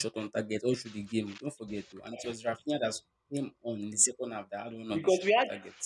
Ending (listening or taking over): taking over